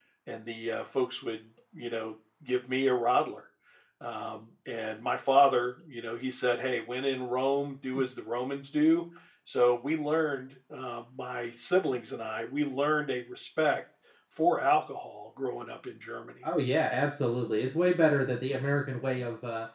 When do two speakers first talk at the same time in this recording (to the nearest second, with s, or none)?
none